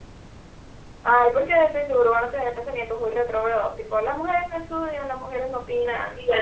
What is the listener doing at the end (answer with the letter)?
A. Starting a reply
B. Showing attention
A